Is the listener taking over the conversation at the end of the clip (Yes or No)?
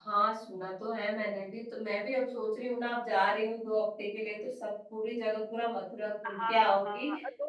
Yes